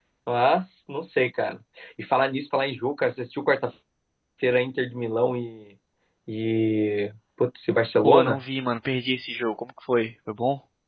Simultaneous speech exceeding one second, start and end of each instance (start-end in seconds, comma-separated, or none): none